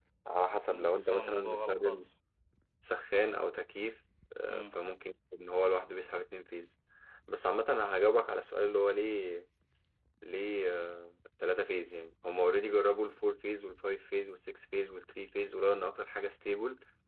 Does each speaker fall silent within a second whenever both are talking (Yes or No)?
No